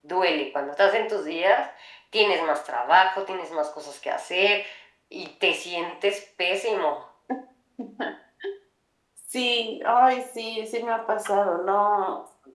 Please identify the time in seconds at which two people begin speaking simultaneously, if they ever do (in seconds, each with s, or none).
none